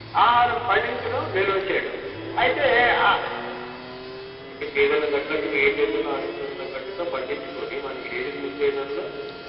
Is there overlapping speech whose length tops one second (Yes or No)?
No